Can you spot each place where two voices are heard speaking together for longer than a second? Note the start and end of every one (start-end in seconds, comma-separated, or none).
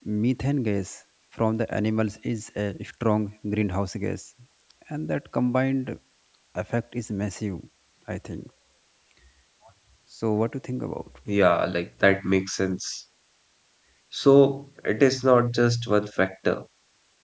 none